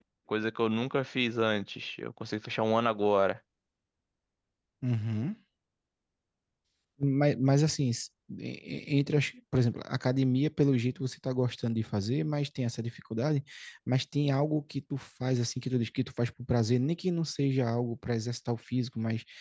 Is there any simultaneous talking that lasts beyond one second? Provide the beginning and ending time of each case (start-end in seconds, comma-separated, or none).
none